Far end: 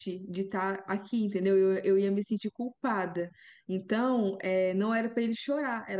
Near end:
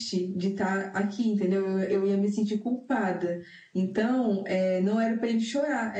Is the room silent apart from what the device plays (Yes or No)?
Yes